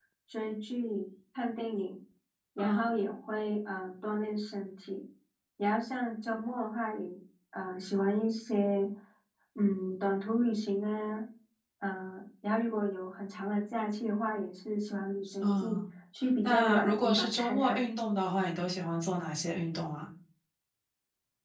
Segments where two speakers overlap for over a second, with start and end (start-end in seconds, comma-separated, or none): 16.4-17.9